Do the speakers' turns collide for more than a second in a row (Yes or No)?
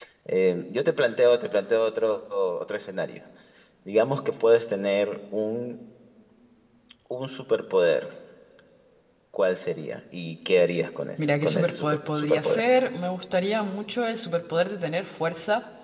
Yes